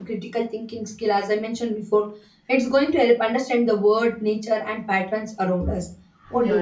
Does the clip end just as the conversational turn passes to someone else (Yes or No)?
Yes